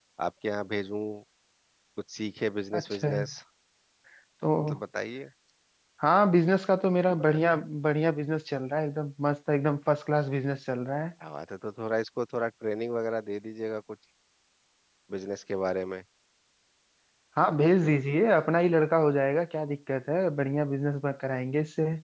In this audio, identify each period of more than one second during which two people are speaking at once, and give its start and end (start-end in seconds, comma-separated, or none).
none